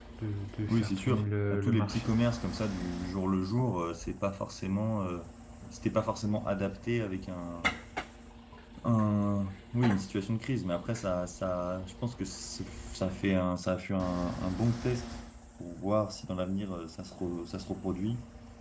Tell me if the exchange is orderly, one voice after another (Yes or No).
No